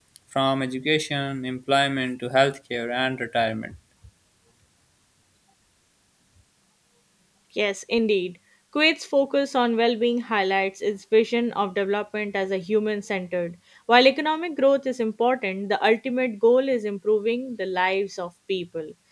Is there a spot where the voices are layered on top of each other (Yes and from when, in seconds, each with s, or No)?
No